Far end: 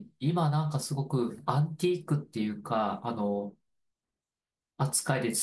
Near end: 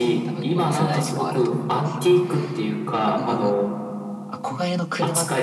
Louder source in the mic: echo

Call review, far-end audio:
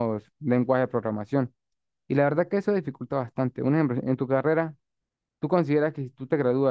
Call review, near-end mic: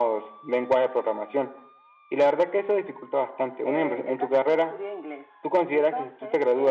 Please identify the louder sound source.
echo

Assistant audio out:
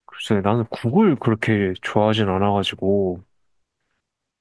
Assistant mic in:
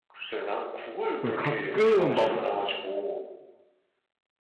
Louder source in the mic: user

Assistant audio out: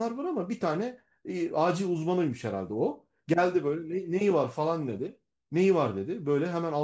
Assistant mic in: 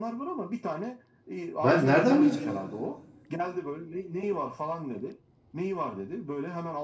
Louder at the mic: user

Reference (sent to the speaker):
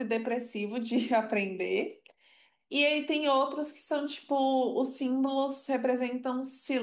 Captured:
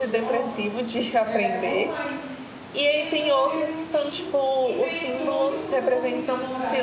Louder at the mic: echo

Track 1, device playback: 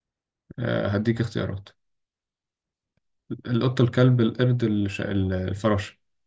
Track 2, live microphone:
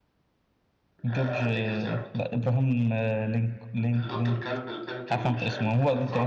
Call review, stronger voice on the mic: user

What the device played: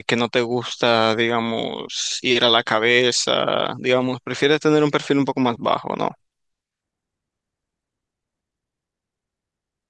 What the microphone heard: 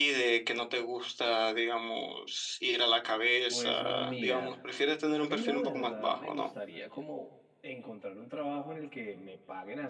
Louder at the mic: echo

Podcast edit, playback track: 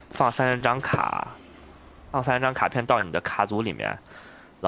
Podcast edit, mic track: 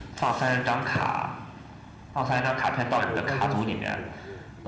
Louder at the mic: echo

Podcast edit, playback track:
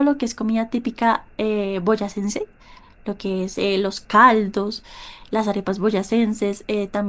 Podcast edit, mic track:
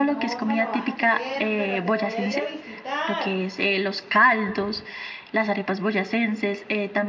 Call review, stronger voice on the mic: echo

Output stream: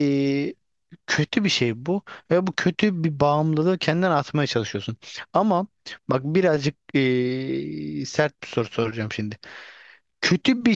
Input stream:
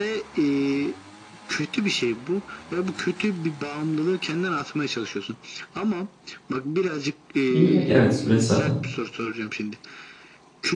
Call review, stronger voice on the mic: user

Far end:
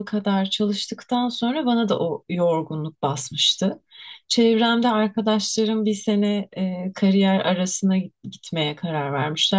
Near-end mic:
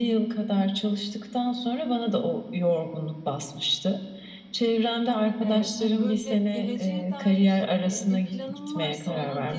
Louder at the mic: echo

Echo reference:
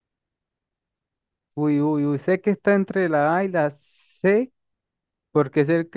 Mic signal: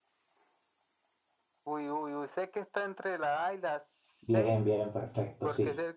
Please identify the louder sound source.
user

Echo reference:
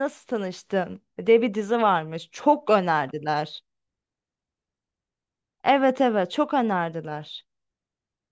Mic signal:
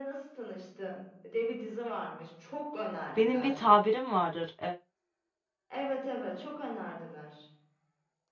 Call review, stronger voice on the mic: user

